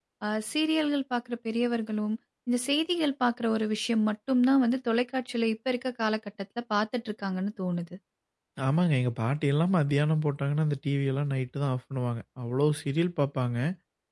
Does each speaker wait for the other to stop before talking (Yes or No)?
Yes